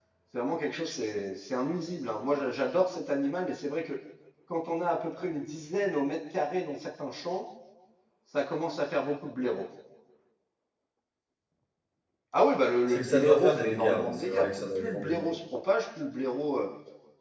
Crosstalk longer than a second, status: present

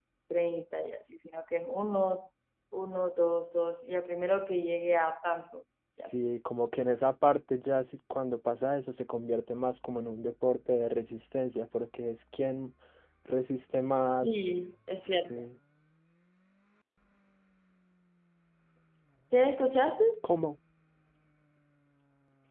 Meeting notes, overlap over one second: none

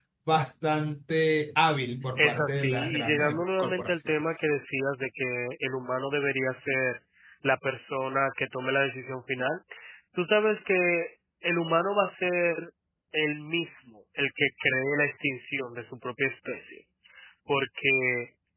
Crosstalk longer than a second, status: present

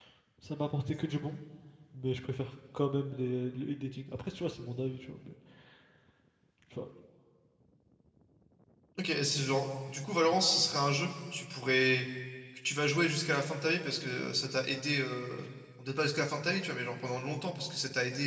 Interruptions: none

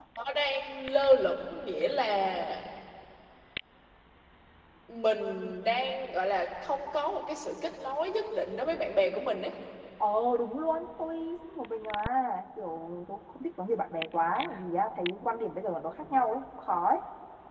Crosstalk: none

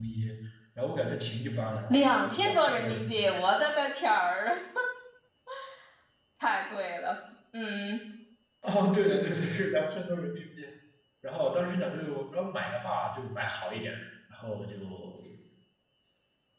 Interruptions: present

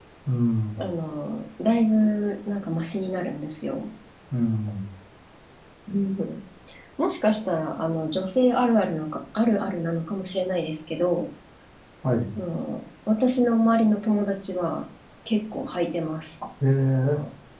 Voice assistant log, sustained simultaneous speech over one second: none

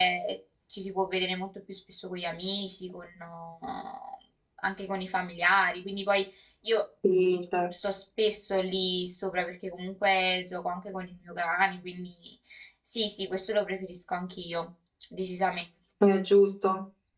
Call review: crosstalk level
none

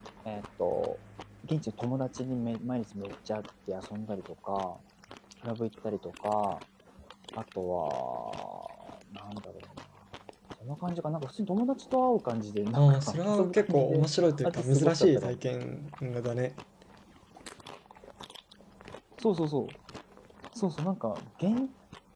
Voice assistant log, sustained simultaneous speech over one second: present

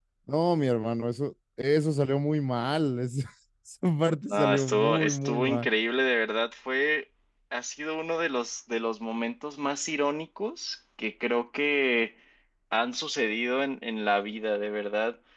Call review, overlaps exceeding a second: present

